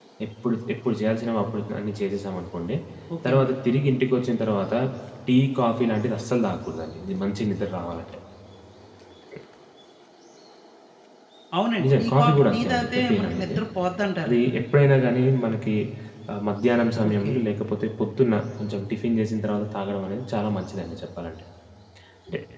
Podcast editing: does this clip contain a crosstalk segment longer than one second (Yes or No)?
Yes